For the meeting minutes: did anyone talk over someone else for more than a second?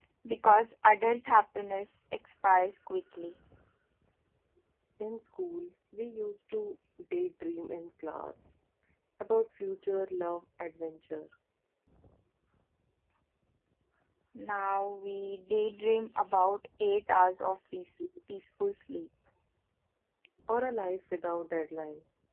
No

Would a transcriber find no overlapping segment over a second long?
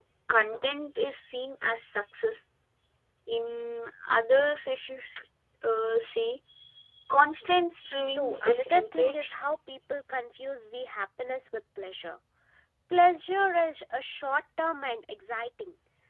No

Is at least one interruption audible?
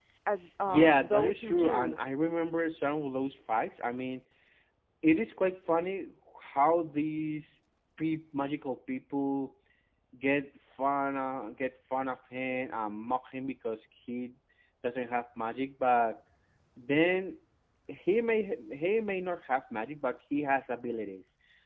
Yes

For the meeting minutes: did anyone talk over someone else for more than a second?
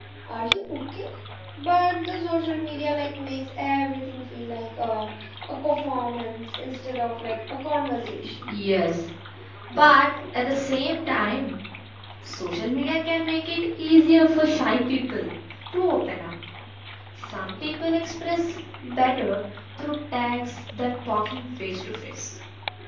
No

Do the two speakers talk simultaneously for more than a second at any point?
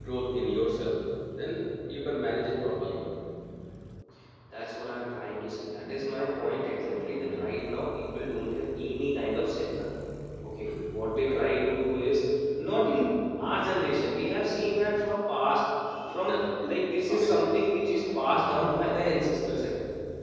No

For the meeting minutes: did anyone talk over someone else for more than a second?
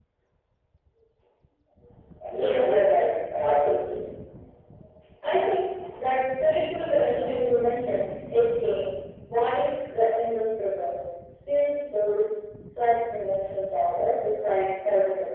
Yes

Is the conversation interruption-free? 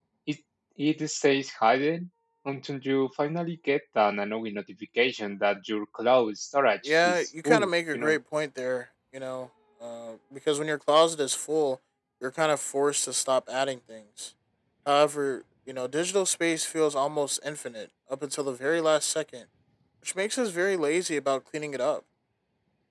No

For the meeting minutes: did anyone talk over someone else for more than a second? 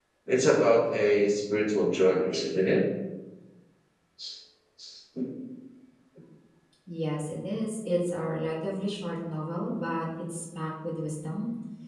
No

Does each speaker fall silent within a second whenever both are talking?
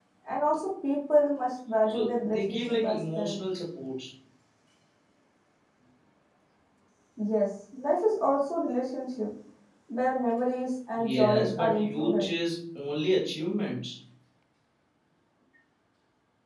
No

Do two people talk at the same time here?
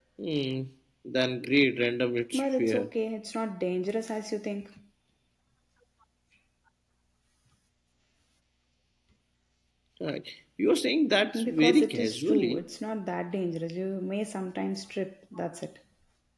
Yes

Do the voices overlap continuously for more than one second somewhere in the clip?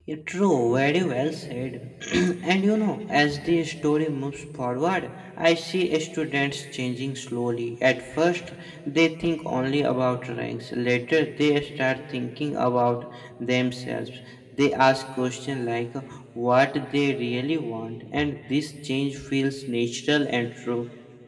No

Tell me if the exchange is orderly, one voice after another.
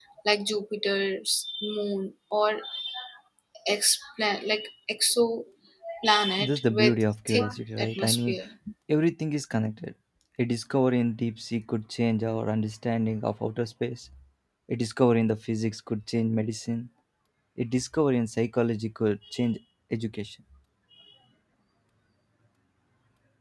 No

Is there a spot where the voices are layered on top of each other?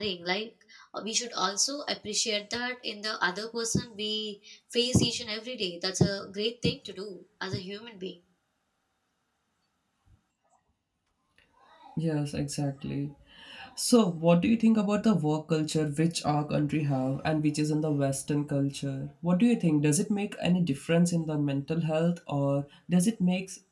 No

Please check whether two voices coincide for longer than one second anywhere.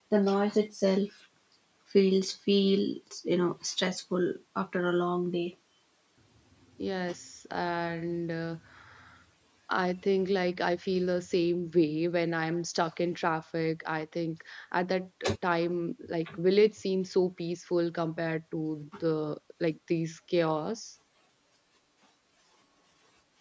No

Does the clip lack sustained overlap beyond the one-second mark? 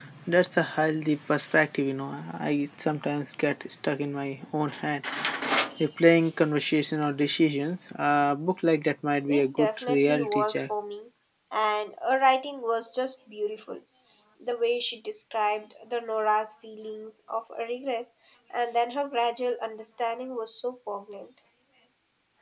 No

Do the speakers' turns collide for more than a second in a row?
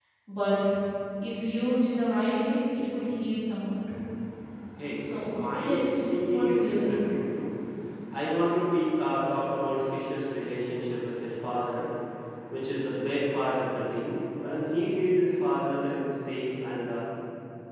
Yes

